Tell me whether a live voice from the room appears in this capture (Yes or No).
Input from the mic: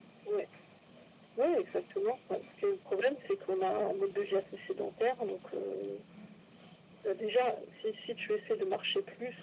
No